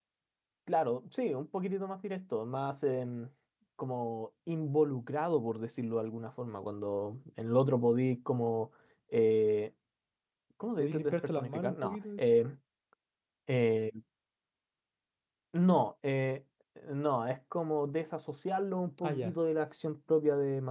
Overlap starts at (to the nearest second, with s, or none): 11 s